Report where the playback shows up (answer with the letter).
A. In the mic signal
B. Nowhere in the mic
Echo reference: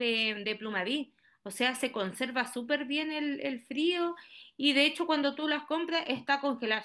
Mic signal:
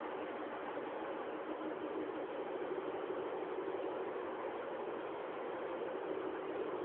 B